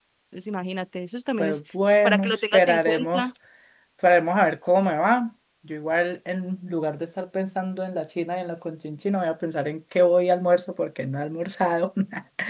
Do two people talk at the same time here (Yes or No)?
Yes